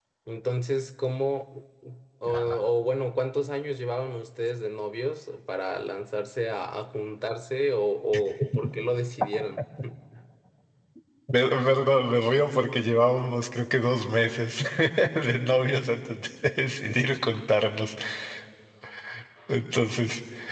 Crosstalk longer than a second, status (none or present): none